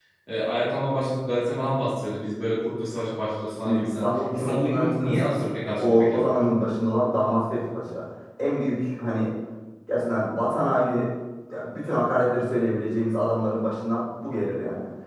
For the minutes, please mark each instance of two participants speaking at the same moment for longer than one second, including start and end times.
3.6-5.4

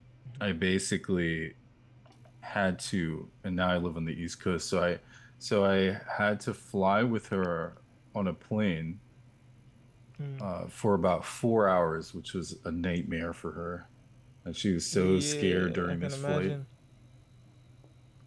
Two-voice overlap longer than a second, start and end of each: 14.9-16.6

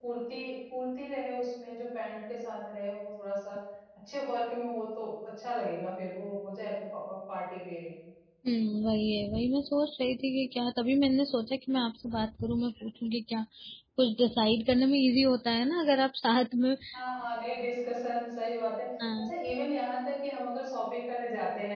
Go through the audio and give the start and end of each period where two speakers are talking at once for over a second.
none

